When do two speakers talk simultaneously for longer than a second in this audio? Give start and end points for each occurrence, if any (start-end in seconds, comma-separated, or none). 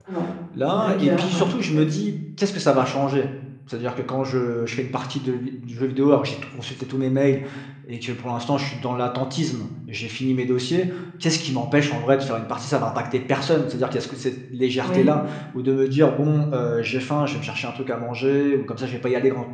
0.7-2.0